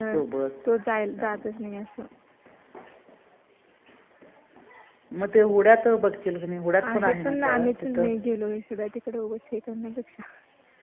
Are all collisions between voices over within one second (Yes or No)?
No